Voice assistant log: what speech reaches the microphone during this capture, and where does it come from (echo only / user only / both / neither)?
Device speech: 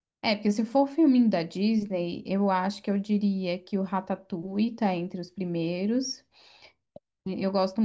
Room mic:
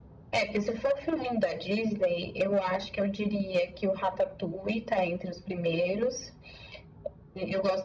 echo only